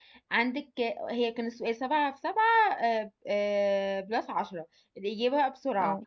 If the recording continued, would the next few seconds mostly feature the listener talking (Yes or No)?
No